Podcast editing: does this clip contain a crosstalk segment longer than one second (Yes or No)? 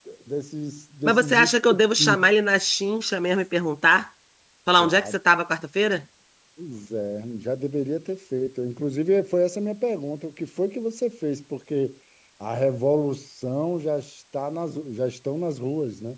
Yes